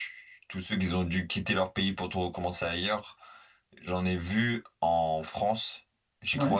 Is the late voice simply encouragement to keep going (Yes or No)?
Yes